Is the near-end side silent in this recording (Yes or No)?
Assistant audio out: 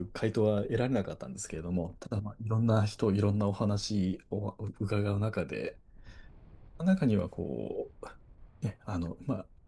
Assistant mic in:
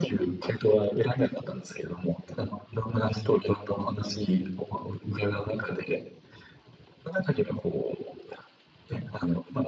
Yes